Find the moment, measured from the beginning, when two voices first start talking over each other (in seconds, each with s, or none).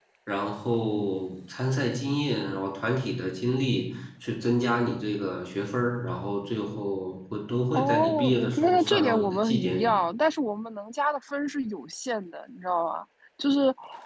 7.7 s